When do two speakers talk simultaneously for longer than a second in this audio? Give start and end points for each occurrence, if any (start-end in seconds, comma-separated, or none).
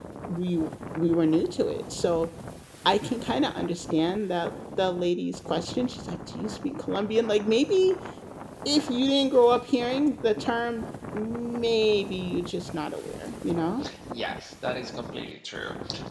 none